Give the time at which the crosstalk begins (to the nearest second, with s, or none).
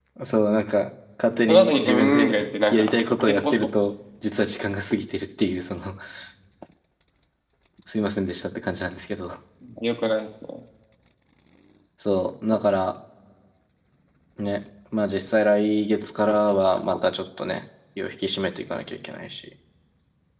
1 s